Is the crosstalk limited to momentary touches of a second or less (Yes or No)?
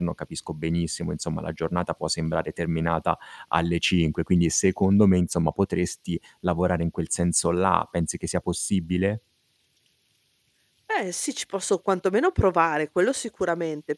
Yes